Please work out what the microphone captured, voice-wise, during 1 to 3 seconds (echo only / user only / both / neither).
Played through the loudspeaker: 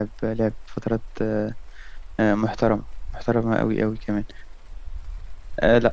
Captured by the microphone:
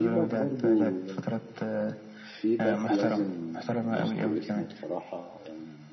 both